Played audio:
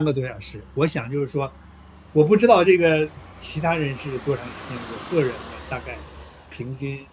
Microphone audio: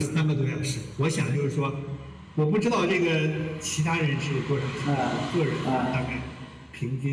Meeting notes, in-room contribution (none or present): present